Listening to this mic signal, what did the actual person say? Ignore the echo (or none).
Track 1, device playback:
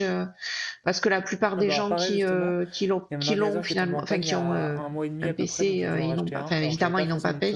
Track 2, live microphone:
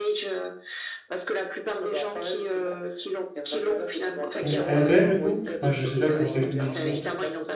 Et elle a quel âge du coup? Enfin, je sais pas pour quel public c'est.